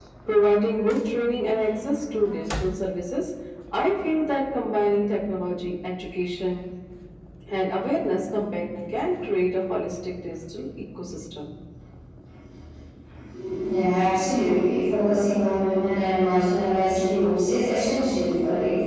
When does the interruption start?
none

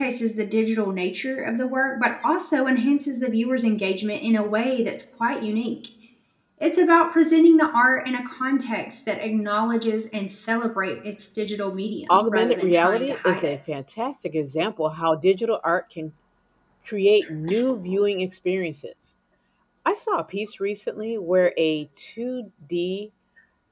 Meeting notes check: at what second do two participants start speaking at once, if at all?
12.1 s

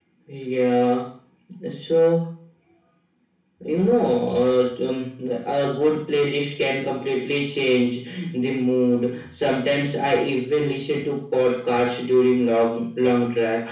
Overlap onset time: none

